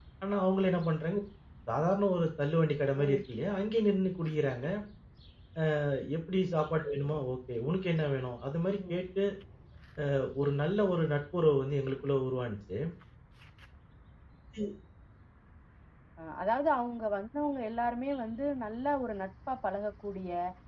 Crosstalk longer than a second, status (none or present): none